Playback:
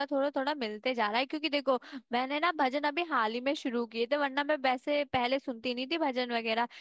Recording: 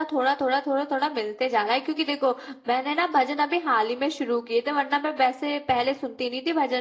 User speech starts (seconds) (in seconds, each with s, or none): none